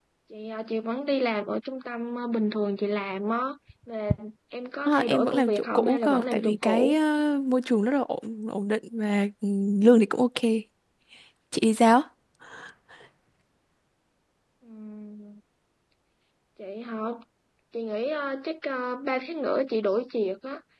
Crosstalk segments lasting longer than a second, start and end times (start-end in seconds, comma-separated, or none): 4.9-7.0